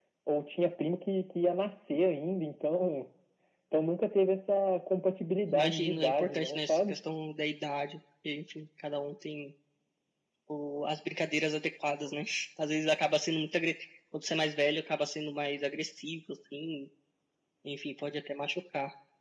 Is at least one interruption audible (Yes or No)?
Yes